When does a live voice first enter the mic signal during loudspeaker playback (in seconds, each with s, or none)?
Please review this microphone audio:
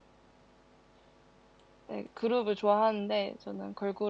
1.9 s